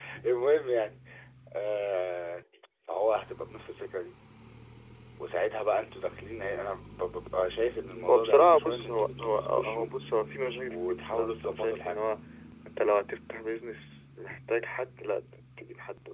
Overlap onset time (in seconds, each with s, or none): 8.1 s